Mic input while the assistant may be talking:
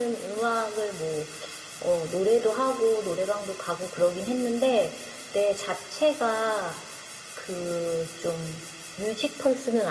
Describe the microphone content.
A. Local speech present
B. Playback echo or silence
B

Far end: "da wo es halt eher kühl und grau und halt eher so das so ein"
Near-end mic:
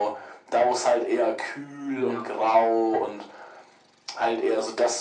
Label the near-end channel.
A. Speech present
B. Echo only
A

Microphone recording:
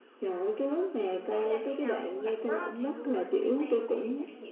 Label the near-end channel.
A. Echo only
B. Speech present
B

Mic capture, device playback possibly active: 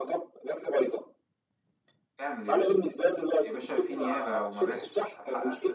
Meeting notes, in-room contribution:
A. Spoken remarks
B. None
A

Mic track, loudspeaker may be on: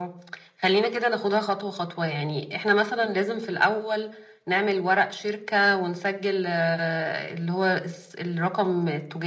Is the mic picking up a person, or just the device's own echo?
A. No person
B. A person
A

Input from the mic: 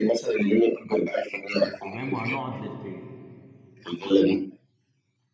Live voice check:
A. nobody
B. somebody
B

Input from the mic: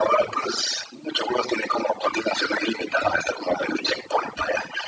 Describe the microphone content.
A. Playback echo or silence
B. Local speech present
A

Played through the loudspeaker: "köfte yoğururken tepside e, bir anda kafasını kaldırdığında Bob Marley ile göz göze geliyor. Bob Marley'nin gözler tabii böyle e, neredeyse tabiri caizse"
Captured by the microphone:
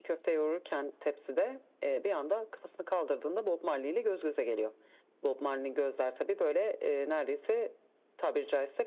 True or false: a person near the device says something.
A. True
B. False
B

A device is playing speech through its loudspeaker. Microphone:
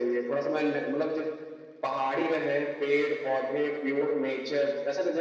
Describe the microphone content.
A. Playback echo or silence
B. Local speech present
A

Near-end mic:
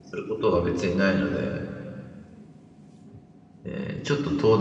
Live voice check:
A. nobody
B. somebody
B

